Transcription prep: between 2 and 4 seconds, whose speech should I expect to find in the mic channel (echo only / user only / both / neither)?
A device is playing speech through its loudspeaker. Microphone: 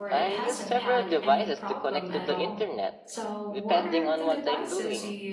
both